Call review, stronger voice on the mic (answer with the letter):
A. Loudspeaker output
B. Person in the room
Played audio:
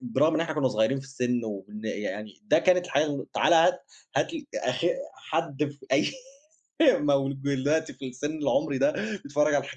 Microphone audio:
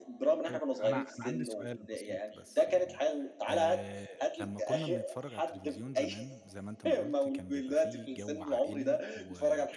A